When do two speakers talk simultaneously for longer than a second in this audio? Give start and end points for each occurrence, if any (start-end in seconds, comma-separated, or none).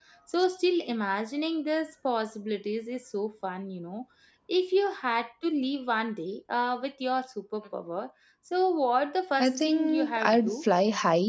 9.4-10.6